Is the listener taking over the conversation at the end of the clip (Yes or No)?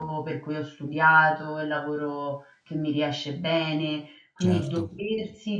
No